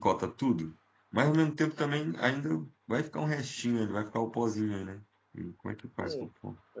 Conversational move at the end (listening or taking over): taking over